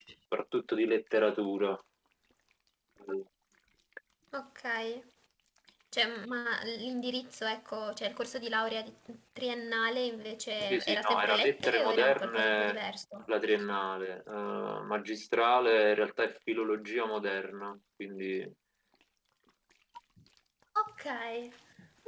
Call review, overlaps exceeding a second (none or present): present